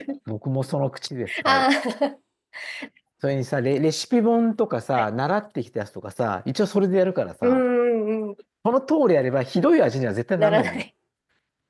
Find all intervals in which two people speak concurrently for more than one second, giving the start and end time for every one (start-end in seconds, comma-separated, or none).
none